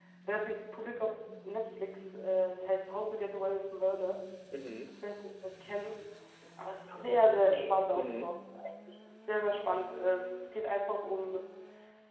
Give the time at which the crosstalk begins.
7 s

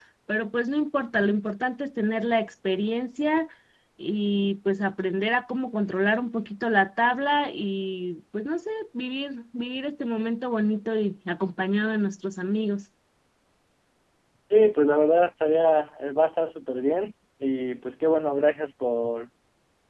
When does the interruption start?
none

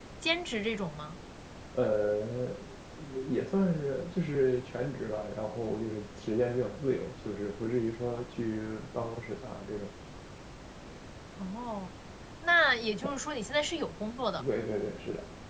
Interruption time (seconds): none

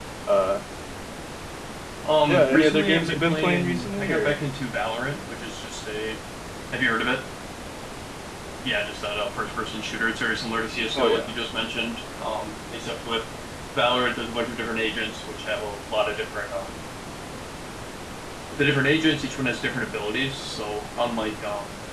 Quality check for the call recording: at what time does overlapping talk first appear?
2 s

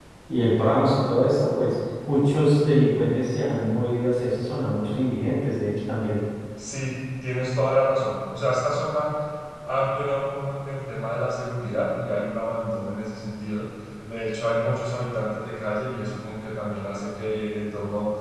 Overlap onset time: none

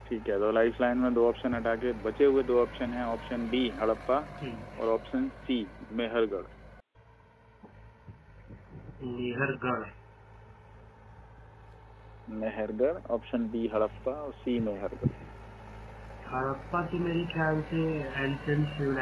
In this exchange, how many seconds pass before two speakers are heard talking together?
none

